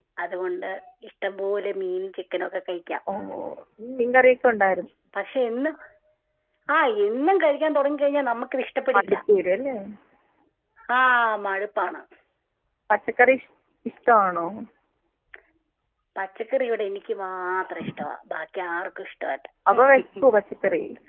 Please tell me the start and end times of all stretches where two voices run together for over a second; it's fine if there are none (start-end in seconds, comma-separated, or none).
none